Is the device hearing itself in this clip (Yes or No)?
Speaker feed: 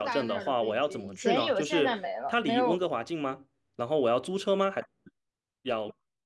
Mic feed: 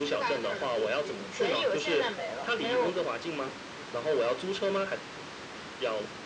Yes